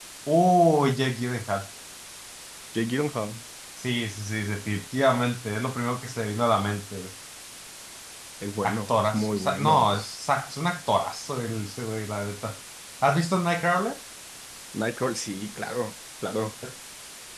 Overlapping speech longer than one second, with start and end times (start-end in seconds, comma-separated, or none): 8.6-10.2